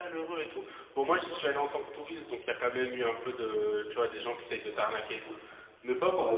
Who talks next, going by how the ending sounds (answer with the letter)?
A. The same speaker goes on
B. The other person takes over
B